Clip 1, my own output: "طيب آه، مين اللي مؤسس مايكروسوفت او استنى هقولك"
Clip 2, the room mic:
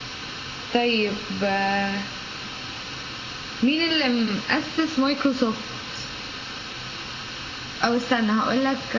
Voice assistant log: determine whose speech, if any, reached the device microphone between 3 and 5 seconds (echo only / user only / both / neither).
echo only